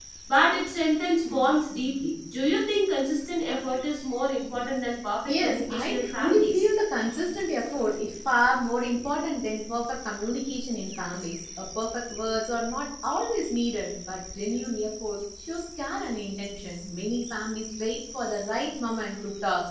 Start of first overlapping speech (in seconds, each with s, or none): 5.3 s